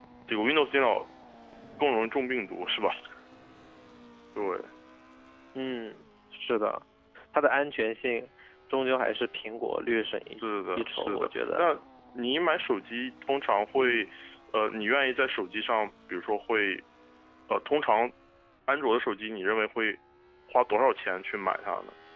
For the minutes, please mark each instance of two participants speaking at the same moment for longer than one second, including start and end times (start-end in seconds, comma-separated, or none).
10.4-11.6